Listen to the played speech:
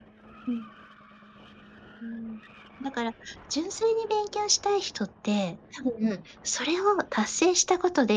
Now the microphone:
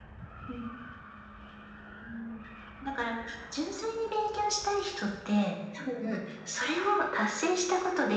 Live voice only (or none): none